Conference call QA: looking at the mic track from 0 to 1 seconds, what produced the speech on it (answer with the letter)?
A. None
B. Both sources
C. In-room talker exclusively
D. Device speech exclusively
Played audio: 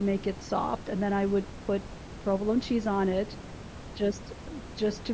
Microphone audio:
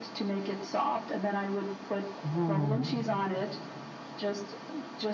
D